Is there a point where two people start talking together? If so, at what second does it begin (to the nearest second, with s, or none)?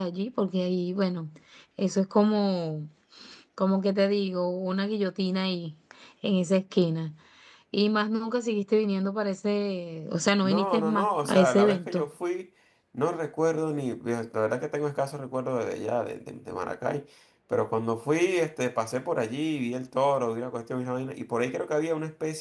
10 s